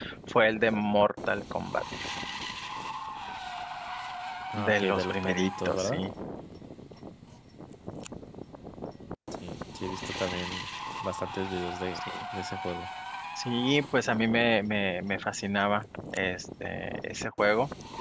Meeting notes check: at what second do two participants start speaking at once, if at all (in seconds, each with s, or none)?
4.5 s